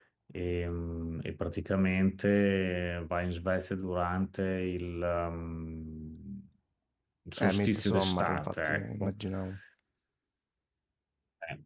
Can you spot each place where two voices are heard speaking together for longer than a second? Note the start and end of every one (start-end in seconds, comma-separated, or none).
7.4-9.1